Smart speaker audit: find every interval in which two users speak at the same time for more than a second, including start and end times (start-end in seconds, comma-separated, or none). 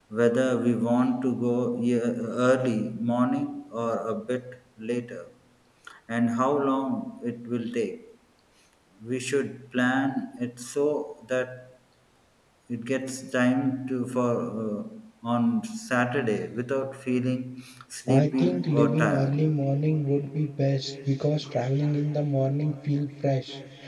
18.1-19.4